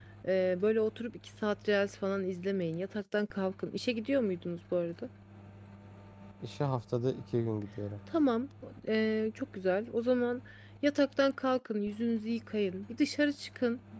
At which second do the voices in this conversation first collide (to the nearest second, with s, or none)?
none